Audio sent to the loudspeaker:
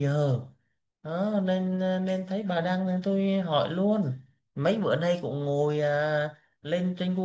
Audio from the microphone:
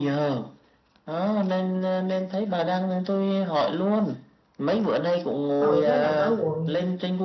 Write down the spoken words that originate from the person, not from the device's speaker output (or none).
ừ nó nằm ở quận